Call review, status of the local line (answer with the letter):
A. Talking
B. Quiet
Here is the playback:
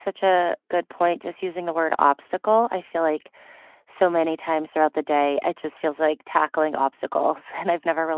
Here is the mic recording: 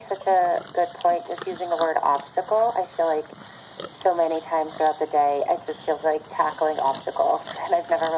B